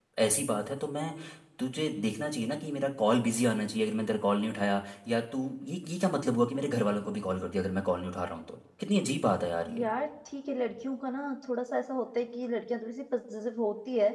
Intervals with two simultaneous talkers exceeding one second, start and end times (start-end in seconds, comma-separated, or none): none